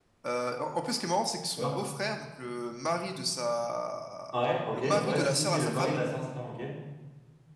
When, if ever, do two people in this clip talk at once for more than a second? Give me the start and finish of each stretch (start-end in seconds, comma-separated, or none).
4.7-6.0